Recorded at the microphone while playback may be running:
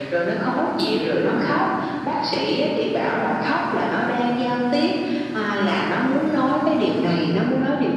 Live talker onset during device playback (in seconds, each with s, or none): none